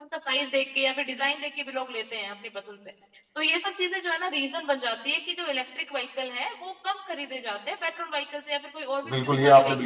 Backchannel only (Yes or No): No